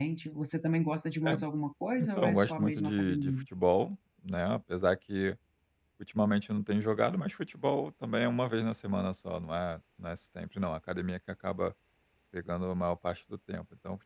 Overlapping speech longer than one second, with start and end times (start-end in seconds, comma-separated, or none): 2.0-3.3